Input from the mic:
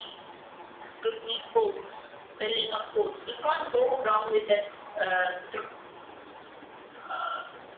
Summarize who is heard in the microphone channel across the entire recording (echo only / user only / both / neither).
echo only